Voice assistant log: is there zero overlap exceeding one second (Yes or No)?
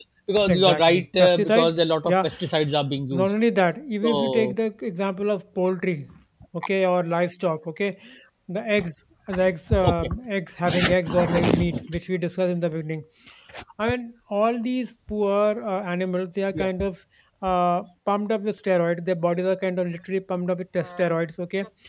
No